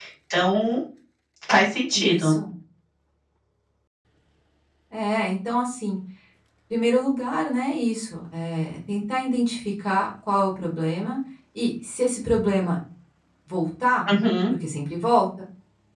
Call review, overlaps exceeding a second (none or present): none